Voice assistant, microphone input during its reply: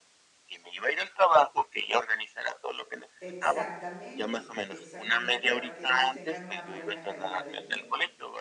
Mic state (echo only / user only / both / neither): both